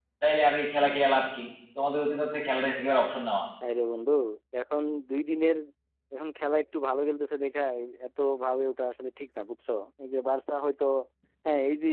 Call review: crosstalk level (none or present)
none